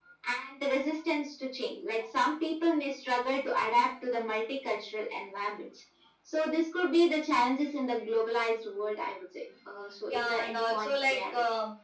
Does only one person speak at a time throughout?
No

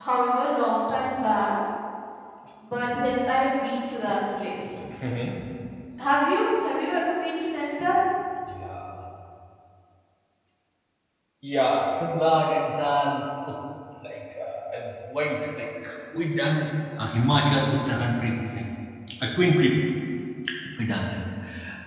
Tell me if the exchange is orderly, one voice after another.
Yes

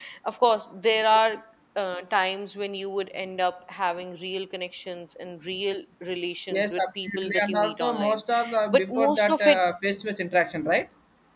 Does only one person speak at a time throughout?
No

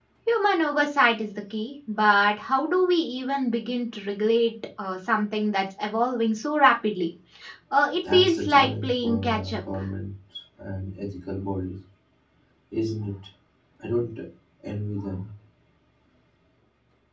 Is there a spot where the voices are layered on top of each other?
Yes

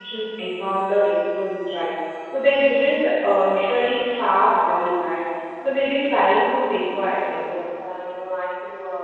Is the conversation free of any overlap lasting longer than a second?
Yes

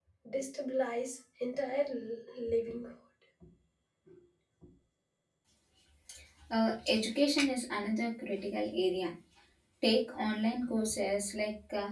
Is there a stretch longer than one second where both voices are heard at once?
No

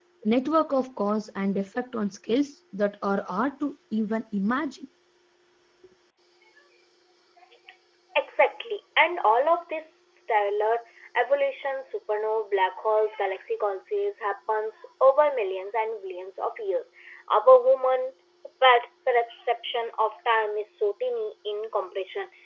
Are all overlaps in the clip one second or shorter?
Yes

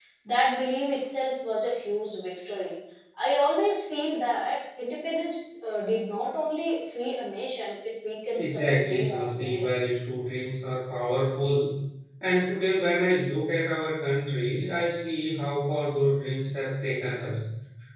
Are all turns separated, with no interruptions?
No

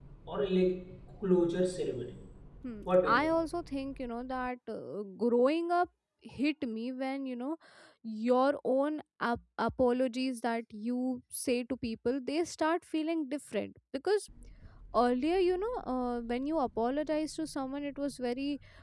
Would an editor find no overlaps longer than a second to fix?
Yes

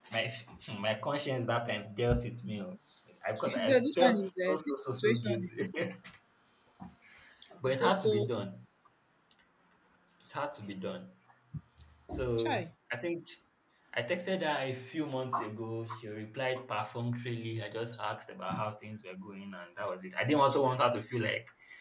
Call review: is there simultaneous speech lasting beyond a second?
Yes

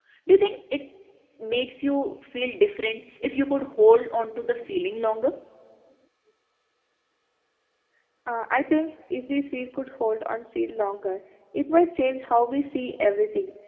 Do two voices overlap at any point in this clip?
No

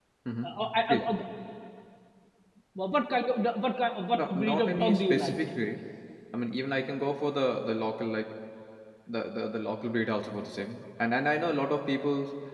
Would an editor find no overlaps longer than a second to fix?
No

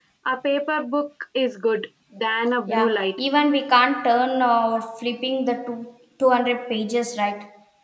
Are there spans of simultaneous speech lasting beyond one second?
No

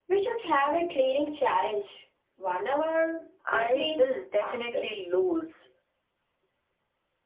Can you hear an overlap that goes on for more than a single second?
Yes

